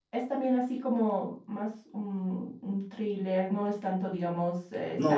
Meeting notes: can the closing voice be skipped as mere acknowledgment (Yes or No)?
No